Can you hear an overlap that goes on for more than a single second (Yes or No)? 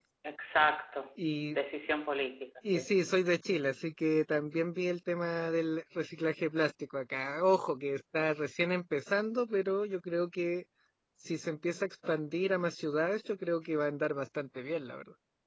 No